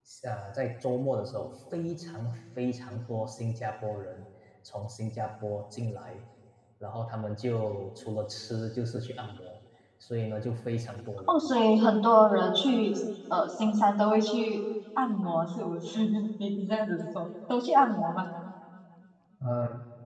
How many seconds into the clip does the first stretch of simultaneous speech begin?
none

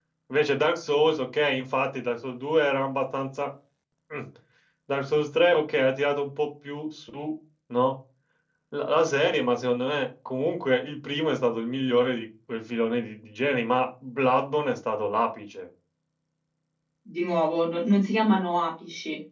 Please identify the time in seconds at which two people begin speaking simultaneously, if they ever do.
none

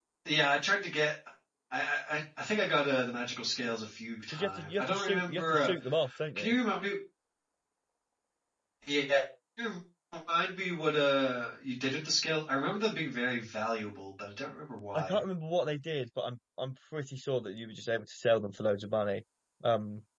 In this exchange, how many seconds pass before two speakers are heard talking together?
4 s

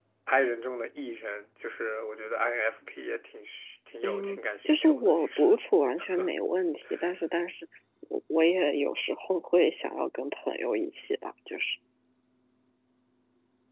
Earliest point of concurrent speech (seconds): 4 s

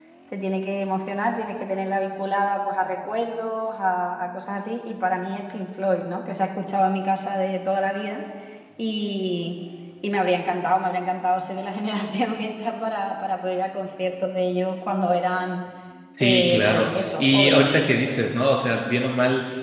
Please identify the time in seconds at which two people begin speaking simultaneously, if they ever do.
16 s

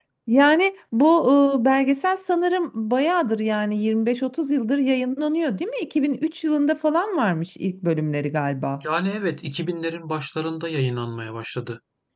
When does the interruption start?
none

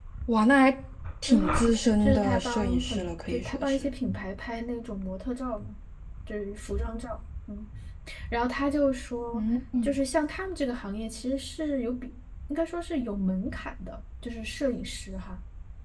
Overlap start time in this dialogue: 1 s

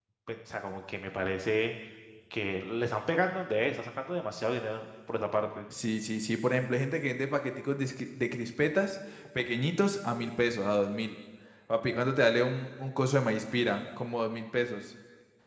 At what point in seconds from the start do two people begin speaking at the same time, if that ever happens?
none

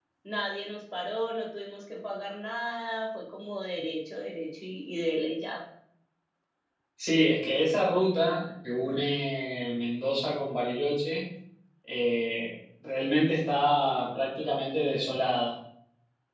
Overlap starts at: none

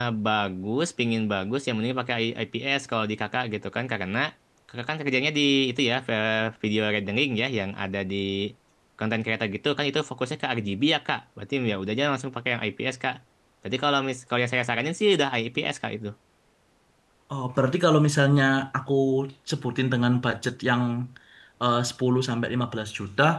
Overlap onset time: none

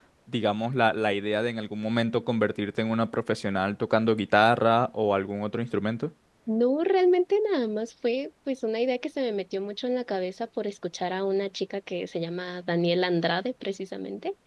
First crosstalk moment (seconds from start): none

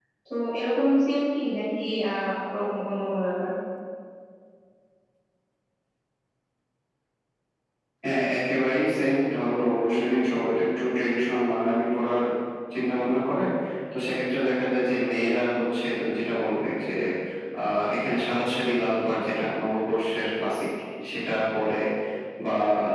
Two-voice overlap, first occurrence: none

